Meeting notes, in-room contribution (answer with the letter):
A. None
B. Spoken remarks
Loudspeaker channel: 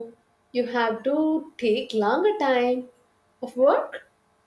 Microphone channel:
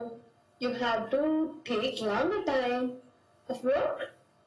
A